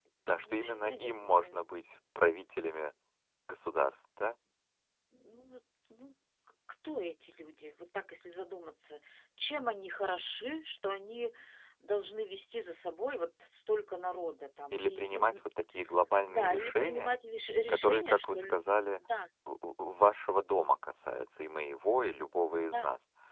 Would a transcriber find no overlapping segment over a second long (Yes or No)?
No